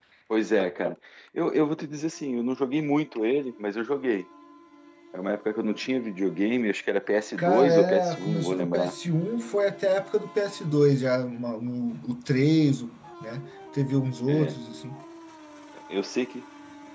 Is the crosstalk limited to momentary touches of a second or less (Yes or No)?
No